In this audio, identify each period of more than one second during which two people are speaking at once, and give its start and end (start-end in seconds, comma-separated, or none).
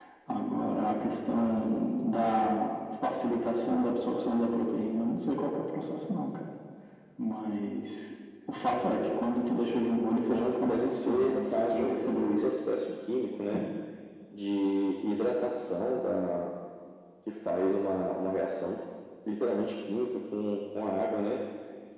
10.3-12.5